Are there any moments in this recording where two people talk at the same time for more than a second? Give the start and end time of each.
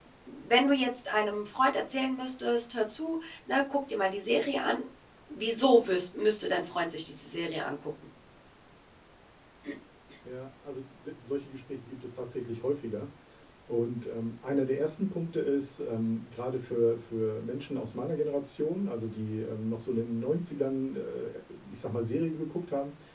none

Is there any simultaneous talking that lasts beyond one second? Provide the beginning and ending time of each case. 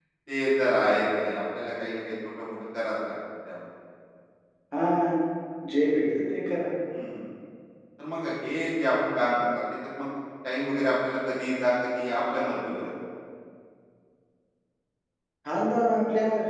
none

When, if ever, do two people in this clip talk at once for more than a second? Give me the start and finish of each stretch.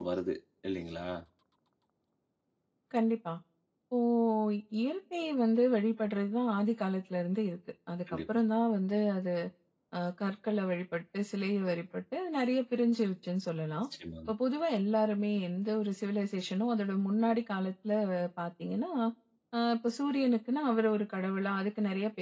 none

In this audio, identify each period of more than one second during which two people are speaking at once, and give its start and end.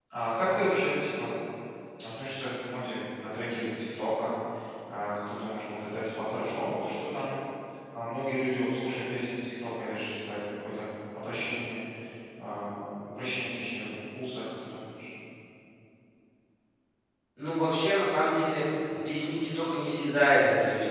none

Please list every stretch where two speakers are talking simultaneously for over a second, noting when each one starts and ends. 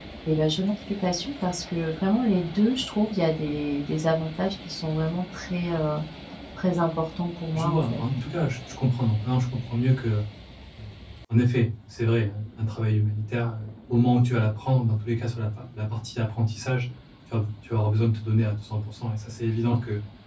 none

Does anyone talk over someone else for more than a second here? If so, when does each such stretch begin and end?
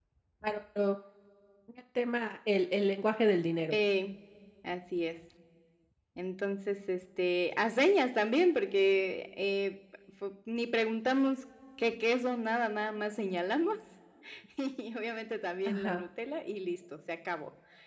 none

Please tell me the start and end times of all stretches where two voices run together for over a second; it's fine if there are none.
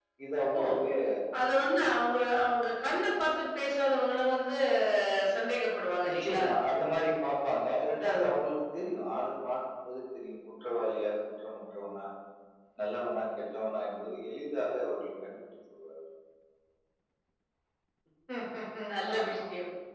none

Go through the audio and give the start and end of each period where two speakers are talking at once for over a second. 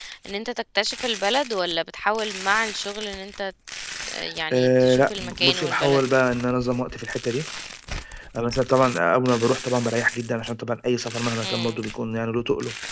4.5-6.0

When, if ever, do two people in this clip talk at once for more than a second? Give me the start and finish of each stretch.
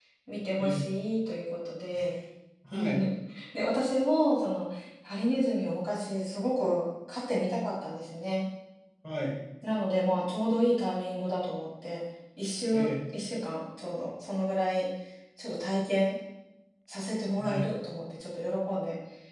none

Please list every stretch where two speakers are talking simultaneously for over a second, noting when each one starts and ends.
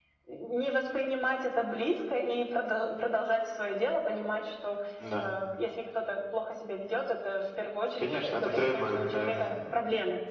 8.0-9.6

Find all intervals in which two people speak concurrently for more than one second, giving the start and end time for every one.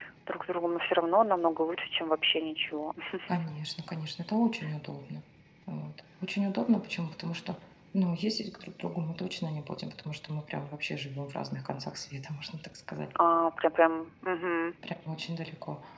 none

